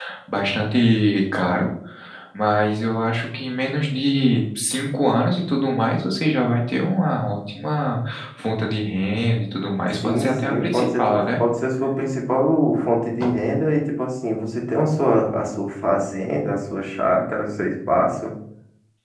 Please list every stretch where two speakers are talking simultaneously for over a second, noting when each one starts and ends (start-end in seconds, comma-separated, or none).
10.0-11.4